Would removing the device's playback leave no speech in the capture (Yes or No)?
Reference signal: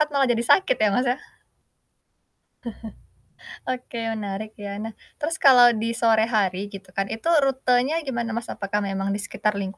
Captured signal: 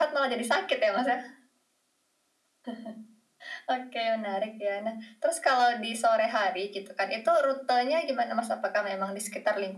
Yes